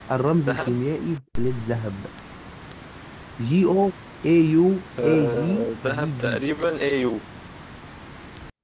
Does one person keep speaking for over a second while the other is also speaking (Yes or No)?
Yes